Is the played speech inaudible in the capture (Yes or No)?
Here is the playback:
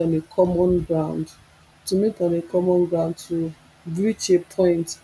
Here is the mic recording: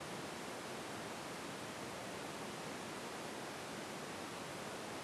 Yes